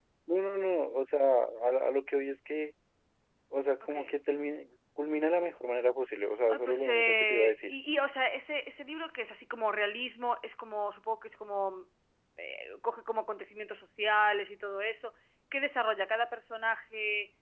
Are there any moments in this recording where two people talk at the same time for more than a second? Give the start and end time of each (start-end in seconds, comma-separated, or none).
6.5-7.7